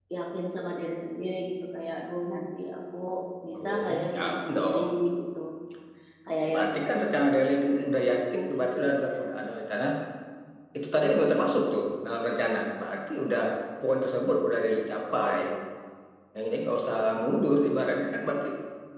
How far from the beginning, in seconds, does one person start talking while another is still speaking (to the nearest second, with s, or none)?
4 s